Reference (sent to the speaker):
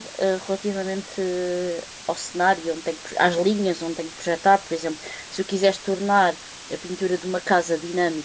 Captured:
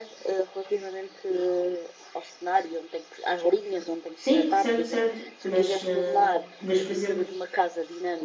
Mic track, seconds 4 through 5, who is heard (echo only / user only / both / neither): both